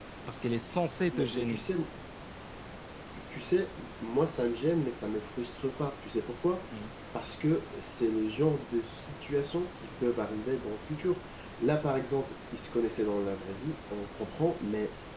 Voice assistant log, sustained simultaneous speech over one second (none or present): none